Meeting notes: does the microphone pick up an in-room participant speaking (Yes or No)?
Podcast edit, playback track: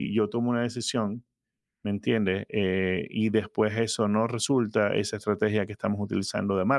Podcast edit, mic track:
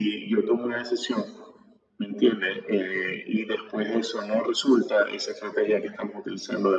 No